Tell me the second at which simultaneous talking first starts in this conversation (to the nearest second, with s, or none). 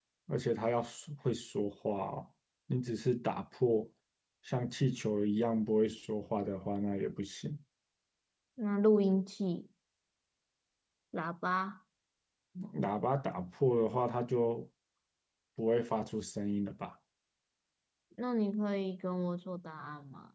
none